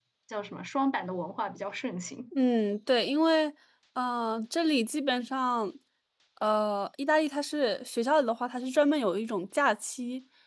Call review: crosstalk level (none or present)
none